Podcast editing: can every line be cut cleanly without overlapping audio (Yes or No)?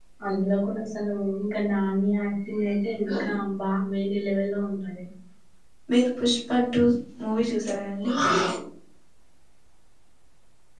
Yes